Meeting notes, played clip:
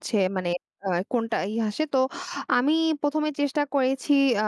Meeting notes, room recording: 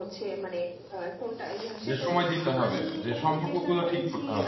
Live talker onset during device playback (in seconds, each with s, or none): 1.9 s